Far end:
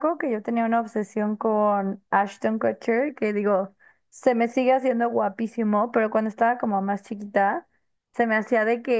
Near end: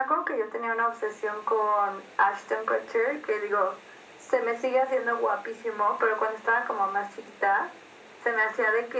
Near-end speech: none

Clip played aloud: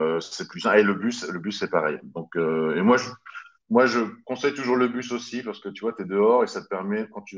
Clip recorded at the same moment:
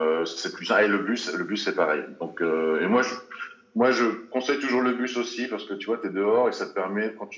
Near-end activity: none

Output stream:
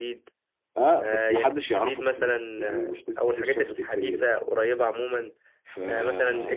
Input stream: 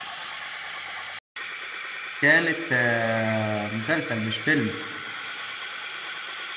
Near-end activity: present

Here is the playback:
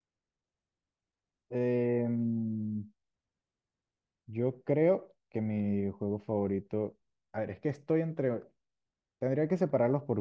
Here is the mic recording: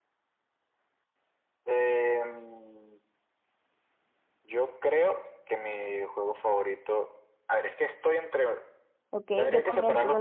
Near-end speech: present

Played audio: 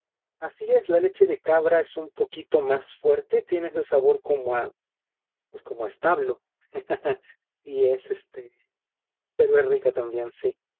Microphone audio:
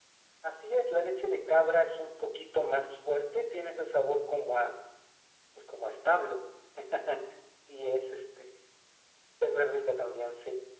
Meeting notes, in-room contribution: none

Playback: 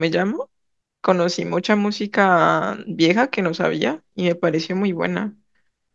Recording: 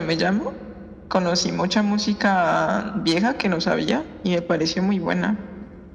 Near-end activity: none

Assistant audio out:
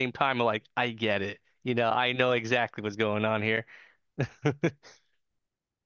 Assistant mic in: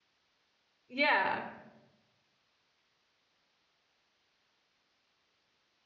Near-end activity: present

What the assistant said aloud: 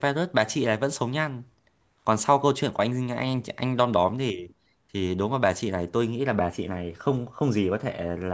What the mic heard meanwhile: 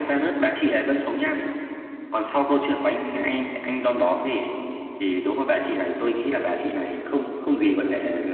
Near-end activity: none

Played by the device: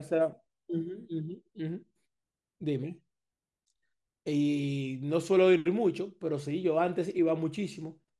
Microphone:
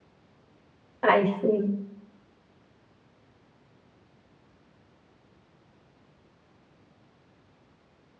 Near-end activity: present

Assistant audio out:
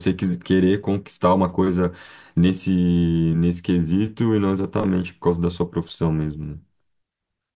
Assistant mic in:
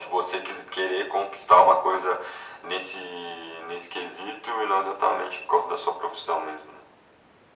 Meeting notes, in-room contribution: none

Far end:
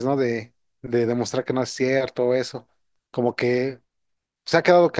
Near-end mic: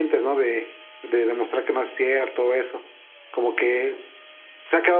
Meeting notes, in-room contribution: none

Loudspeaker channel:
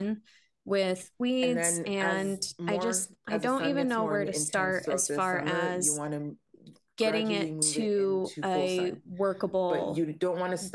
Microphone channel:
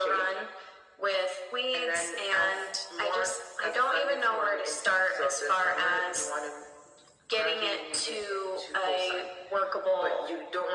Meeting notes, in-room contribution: none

